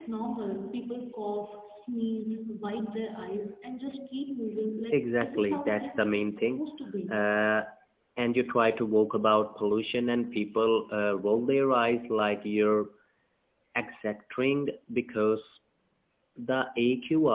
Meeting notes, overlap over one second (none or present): present